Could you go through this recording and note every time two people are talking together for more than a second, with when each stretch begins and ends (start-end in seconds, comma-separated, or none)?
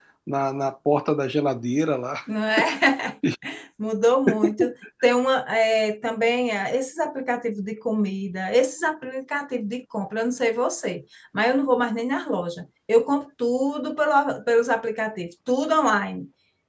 none